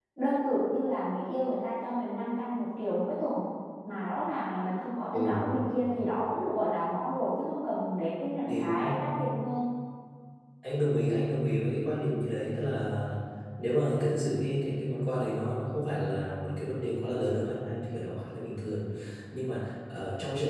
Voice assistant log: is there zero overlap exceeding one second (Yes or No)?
Yes